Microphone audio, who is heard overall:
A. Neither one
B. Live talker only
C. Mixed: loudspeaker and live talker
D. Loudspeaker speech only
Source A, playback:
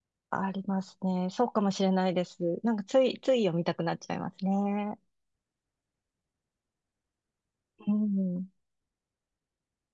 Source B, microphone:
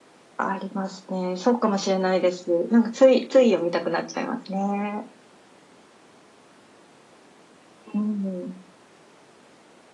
D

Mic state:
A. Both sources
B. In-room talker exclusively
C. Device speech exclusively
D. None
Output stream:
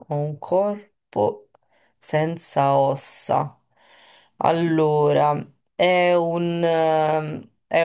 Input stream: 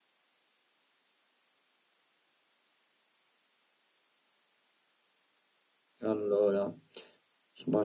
B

